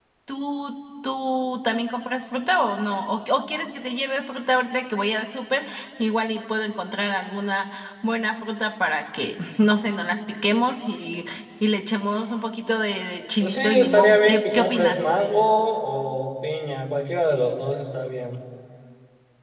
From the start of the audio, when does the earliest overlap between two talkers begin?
13.4 s

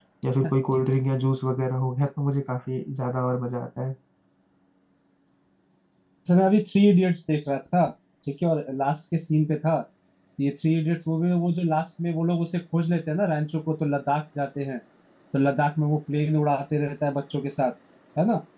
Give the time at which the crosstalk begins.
none

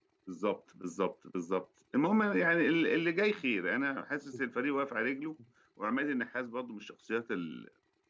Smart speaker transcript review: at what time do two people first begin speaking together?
none

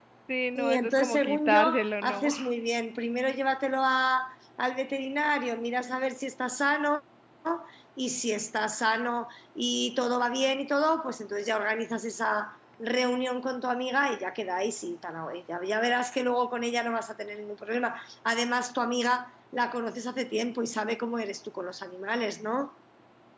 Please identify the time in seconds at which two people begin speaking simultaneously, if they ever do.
0.6 s

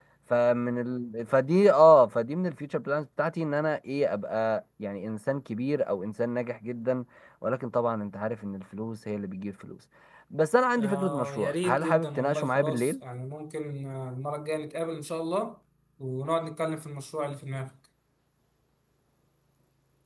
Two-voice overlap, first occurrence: 10.8 s

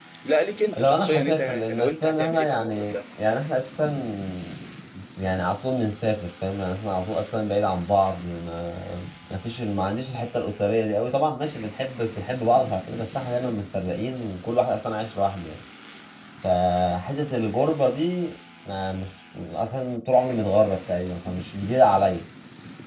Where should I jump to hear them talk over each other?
0.8 s

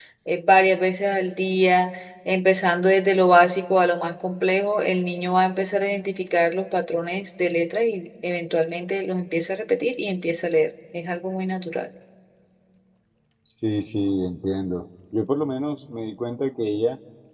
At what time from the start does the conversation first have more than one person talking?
none

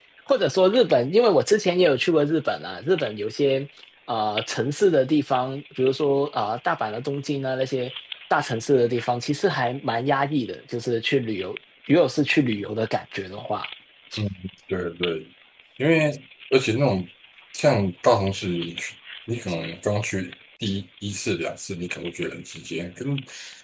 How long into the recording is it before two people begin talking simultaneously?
none

